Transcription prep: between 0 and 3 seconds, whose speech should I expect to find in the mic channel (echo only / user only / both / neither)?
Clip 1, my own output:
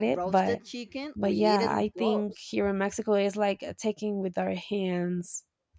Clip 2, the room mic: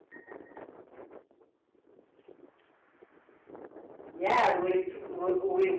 neither